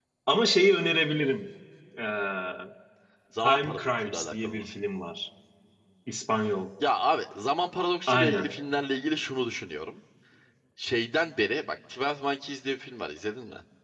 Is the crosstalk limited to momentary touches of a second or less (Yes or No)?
No